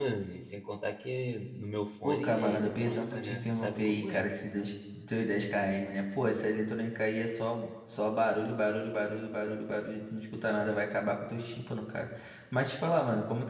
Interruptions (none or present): present